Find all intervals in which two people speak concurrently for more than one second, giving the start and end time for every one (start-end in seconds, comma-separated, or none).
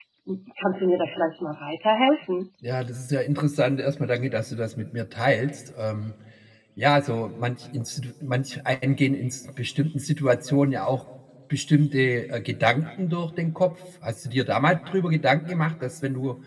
none